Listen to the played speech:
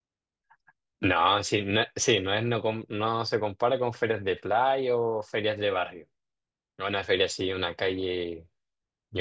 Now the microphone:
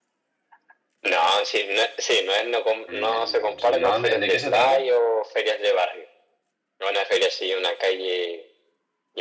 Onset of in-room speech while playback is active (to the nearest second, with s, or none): 3 s